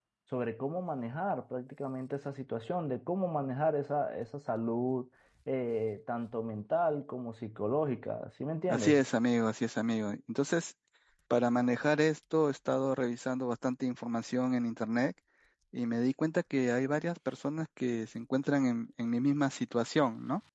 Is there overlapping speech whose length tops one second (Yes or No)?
No